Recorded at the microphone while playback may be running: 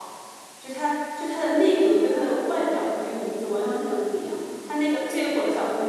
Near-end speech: present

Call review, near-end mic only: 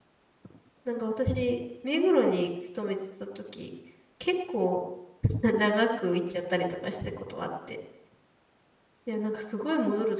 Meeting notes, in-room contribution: present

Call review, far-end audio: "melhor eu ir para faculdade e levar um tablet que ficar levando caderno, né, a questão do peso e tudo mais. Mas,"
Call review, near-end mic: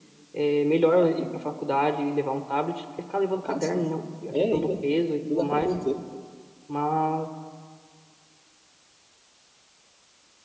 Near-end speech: present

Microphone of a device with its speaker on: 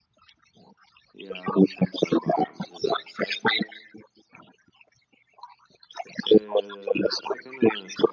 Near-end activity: none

